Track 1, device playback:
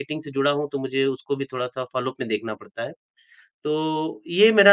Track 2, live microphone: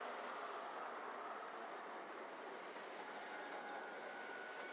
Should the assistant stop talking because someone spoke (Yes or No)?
No